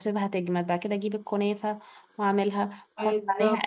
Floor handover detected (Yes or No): No